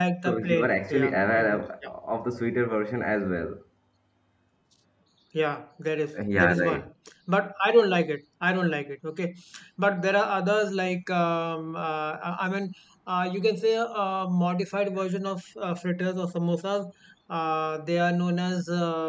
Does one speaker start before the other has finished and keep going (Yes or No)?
Yes